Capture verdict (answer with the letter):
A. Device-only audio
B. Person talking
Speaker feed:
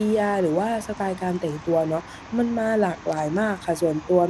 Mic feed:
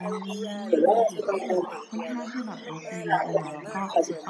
B